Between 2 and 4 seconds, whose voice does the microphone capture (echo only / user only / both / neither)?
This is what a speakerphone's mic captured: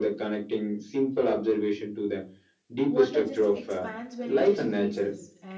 both